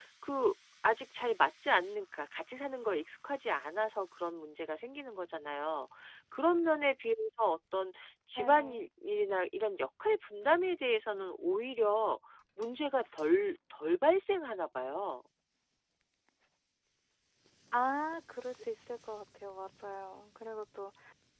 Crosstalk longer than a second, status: none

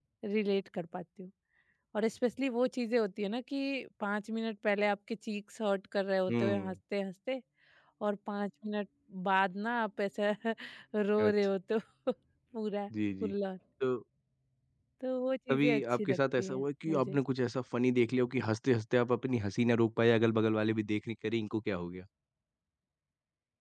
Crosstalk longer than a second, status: present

